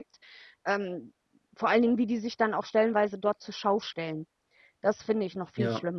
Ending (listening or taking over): taking over